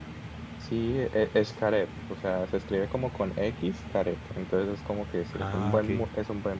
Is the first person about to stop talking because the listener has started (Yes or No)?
No